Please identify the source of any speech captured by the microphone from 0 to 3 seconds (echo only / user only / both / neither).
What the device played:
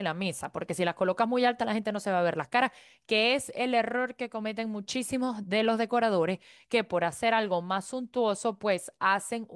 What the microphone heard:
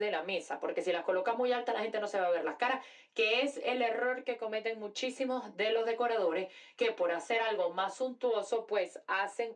echo only